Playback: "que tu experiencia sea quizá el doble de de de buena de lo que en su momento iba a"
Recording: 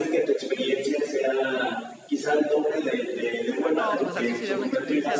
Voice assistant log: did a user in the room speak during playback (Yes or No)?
Yes